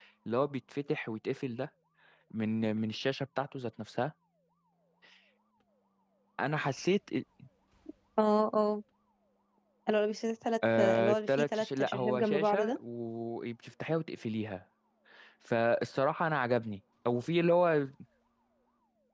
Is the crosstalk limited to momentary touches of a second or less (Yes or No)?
No